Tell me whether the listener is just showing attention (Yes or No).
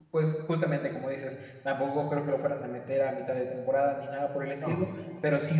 Yes